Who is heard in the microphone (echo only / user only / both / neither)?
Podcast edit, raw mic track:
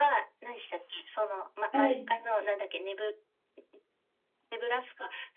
both